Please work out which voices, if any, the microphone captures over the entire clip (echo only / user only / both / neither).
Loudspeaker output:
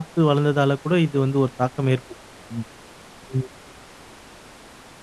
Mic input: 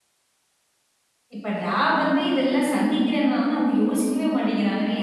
user only